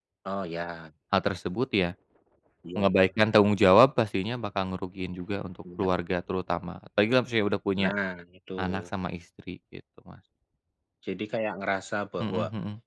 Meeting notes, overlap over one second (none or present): none